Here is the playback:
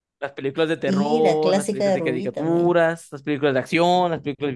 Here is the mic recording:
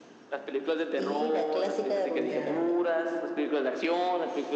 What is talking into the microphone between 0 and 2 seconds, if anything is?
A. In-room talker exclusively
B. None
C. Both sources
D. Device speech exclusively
D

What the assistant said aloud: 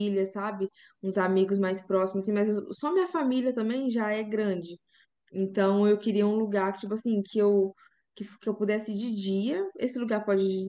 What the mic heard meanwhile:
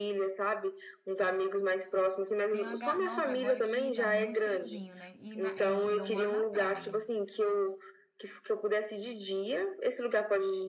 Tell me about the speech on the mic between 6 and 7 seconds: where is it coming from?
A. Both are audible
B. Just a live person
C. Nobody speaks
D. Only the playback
A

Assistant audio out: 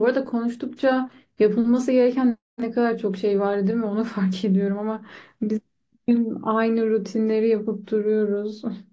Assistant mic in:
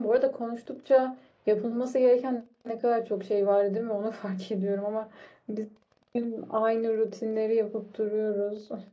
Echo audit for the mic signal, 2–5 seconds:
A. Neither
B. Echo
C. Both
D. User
B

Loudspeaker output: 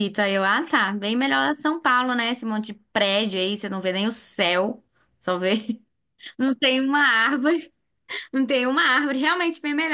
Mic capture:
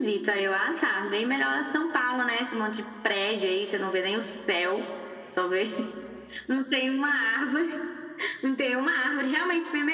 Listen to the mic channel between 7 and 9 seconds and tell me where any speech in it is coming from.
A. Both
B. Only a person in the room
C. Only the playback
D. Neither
C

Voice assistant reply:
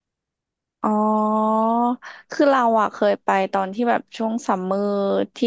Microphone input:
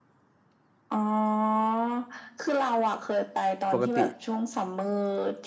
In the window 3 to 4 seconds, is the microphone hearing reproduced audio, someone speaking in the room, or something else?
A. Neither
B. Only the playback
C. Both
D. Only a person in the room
C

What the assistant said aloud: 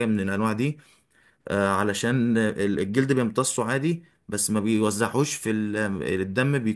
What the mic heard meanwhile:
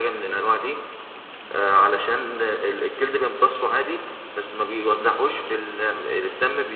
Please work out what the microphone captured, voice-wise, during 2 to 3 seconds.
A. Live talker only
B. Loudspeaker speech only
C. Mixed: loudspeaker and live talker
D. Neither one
B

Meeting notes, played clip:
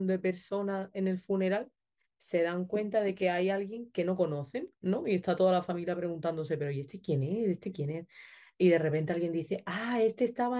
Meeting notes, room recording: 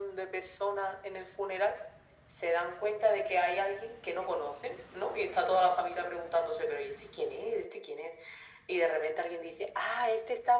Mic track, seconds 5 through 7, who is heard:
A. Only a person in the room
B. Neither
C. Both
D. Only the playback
D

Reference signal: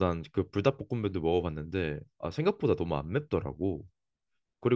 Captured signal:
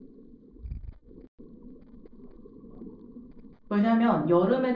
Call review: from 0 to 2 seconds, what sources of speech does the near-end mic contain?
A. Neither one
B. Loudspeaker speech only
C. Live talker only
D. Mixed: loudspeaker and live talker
A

